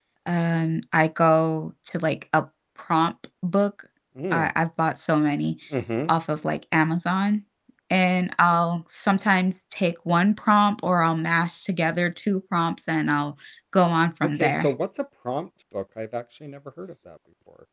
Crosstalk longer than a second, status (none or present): none